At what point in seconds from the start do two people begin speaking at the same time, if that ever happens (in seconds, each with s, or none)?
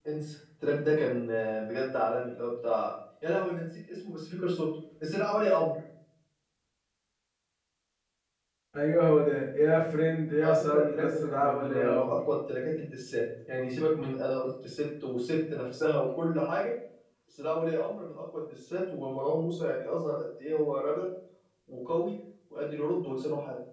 10.4 s